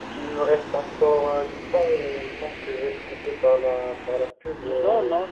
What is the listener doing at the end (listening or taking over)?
taking over